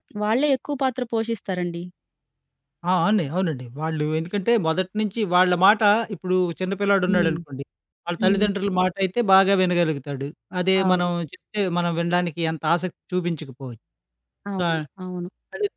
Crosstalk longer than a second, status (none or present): none